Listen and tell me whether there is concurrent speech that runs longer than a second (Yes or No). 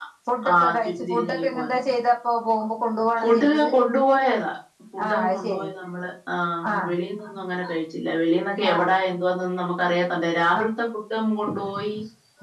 Yes